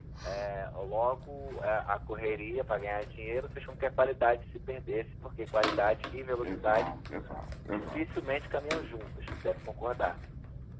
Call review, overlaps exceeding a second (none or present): none